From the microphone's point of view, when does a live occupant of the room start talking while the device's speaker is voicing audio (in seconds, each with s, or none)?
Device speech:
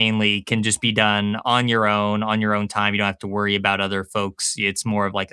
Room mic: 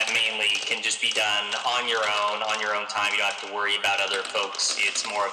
none